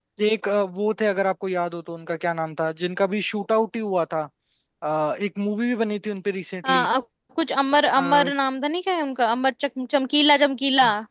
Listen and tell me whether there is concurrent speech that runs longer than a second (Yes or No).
No